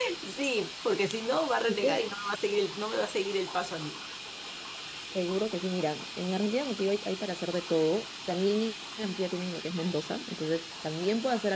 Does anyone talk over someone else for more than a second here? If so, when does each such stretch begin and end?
none

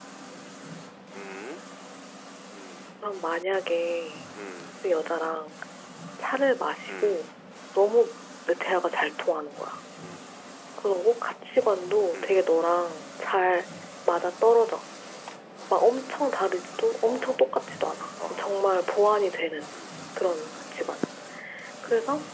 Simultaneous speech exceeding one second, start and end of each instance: none

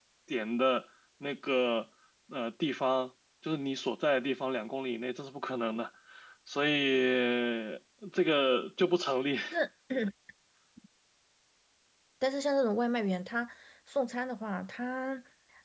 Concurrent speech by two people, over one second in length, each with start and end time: none

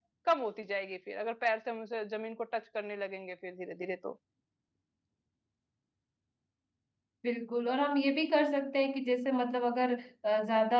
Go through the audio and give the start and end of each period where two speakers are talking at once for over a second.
none

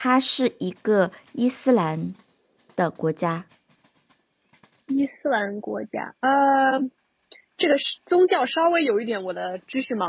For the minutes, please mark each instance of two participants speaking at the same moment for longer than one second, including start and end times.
none

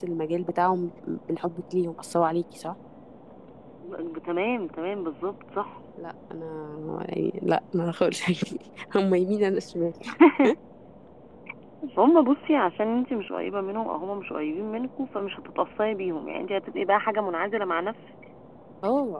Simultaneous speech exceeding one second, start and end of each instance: none

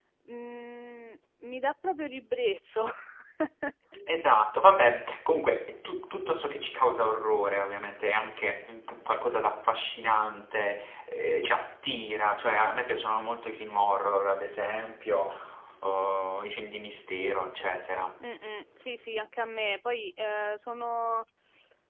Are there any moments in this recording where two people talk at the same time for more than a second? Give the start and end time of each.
none

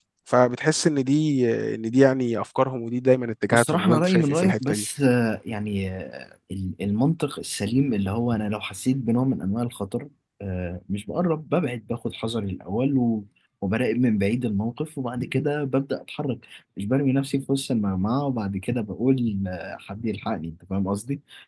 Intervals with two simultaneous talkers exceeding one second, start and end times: 3.5-4.8

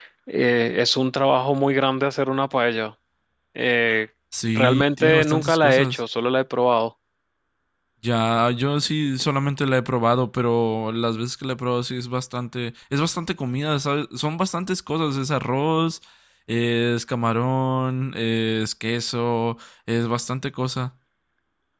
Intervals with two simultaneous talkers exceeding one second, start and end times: 4.5-6.0

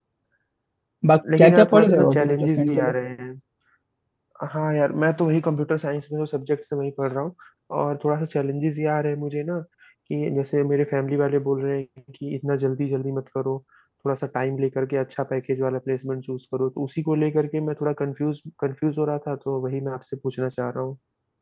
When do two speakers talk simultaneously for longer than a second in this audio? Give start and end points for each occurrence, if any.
1.4-2.9

